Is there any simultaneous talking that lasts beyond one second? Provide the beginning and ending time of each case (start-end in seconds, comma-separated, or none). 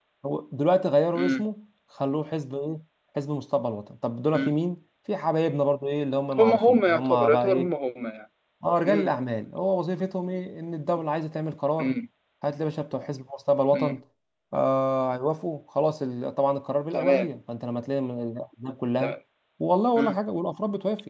6.4-7.7